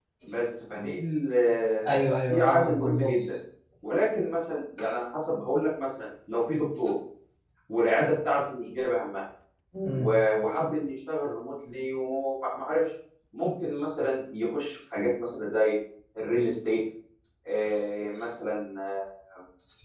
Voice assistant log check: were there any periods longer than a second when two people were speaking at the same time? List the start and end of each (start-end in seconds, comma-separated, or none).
1.9-3.1